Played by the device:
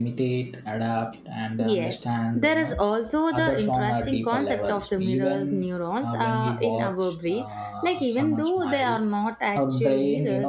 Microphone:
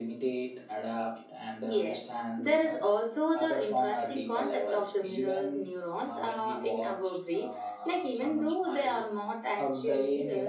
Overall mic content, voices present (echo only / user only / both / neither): echo only